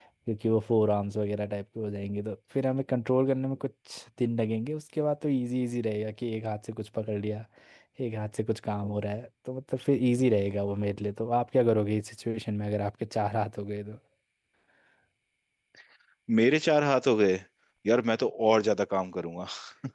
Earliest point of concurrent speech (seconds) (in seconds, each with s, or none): none